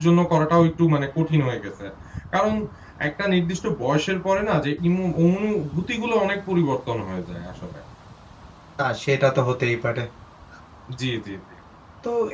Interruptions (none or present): none